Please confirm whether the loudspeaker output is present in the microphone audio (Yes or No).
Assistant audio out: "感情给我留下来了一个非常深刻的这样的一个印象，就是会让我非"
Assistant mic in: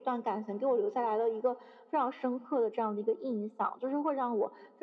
Yes